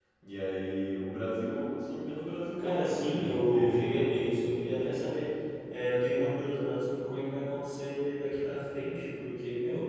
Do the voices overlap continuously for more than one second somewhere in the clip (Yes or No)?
Yes